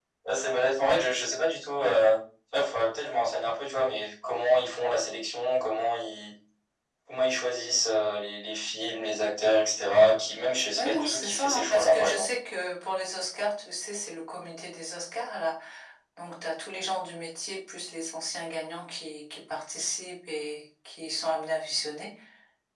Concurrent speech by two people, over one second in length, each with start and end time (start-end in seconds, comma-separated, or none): 10.8-12.3